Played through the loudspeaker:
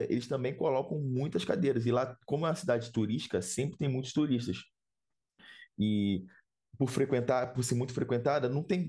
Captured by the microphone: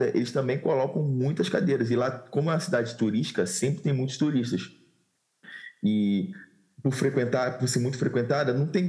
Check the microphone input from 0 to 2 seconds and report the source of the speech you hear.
echo only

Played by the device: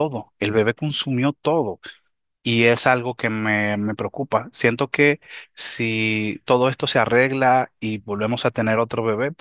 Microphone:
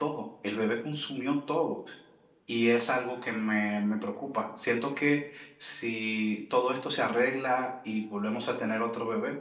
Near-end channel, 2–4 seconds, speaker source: echo only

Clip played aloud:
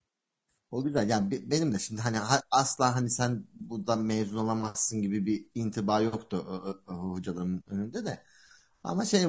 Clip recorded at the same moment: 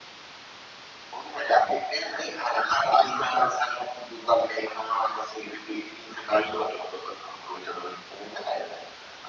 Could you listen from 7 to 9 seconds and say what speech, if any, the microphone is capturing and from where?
echo only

